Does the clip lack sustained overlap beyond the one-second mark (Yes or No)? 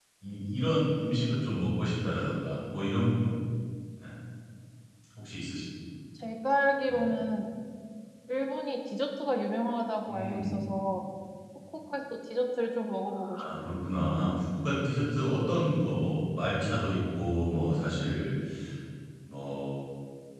Yes